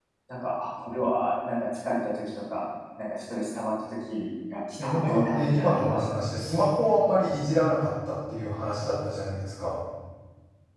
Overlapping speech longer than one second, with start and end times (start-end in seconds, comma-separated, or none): 4.8-6.2